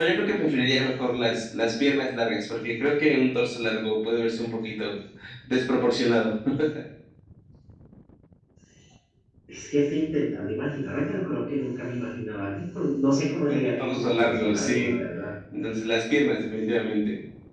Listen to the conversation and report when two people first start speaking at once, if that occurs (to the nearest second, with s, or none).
13 s